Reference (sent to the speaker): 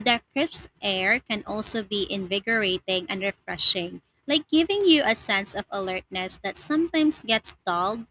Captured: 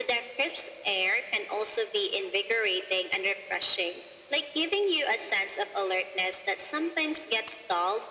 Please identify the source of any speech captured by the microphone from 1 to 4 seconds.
echo only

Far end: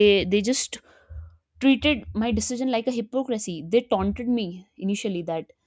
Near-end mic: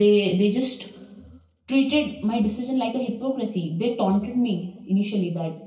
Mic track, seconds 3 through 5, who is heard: echo only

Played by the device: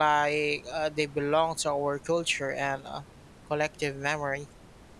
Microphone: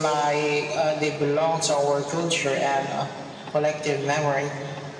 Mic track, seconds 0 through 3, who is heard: echo only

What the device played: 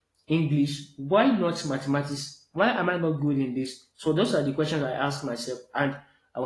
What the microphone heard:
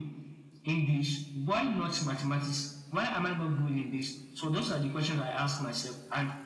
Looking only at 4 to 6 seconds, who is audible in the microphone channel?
echo only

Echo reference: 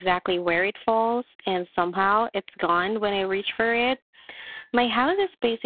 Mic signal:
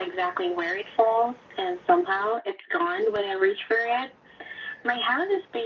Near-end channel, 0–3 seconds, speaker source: echo only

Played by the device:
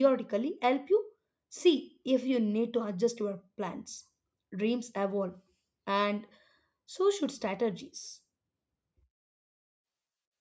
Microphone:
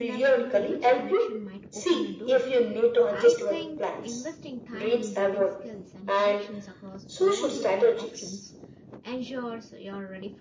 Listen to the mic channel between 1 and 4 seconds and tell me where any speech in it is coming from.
both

